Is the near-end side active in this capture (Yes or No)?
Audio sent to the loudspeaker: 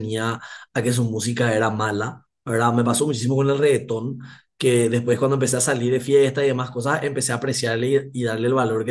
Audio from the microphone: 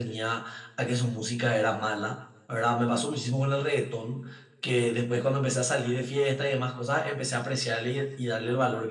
No